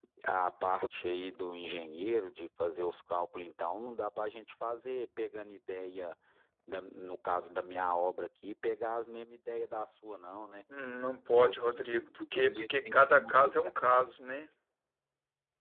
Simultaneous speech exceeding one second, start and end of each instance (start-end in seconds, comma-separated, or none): 11.4-13.6